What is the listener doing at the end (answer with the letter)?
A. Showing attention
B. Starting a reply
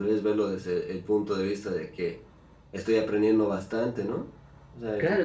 B